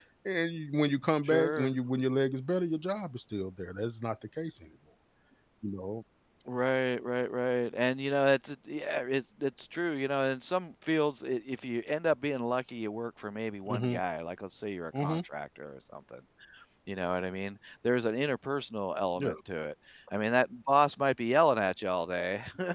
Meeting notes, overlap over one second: none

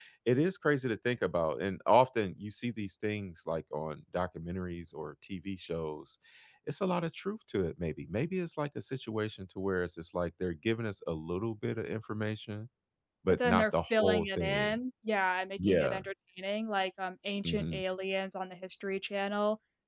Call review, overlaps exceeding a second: present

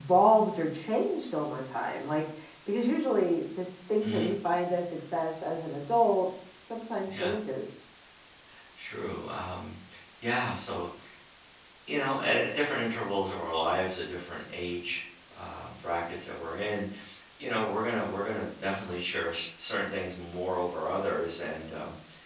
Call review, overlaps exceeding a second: none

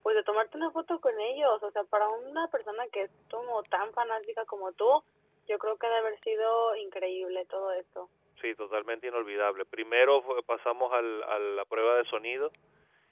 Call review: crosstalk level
none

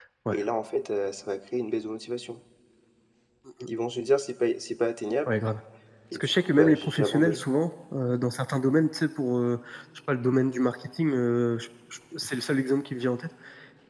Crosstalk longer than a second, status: present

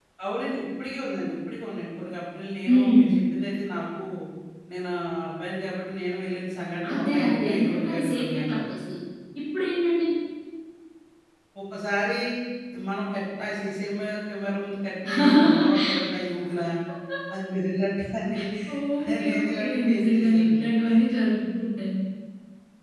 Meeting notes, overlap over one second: present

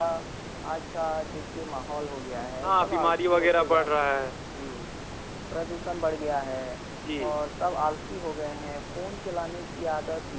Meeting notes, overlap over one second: present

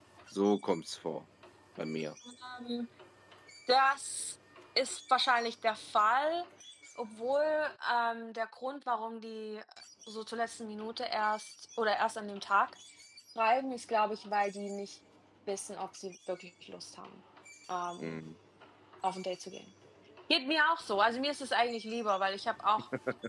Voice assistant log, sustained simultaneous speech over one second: none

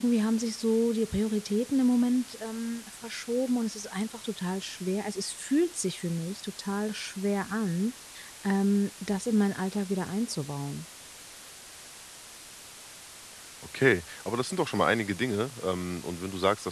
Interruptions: none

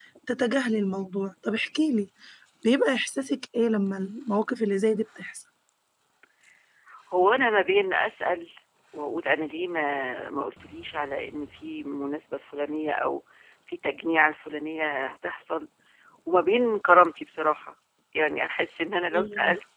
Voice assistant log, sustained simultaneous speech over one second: none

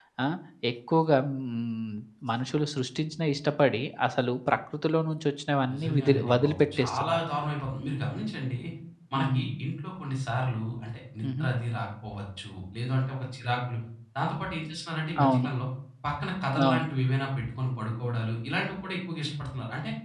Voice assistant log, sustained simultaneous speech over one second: present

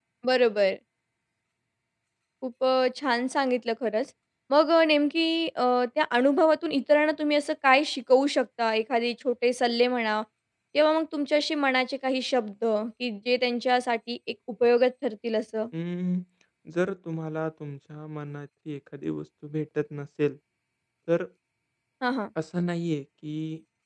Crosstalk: none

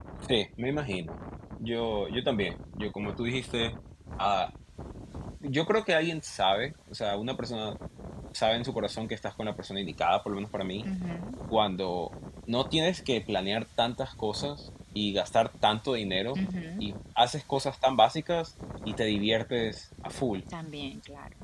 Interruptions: none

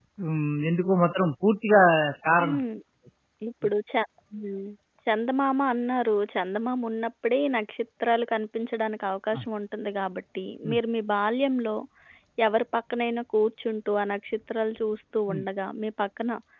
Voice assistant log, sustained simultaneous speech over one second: none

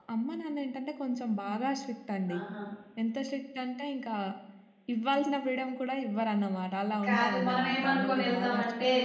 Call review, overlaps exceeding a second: present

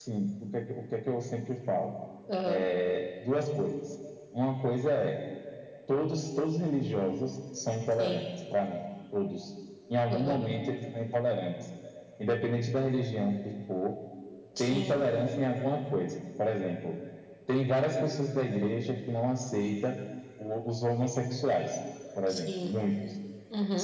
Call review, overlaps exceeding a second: none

